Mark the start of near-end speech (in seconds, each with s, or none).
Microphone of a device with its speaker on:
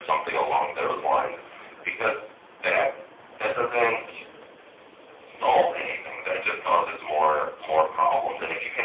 none